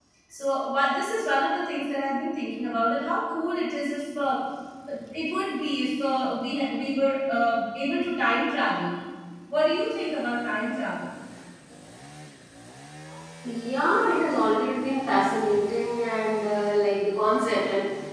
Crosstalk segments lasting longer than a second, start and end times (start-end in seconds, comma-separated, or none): none